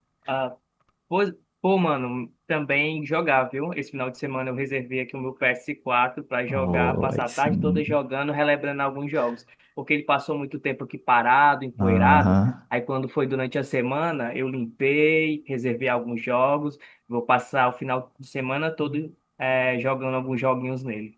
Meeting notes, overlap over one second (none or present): present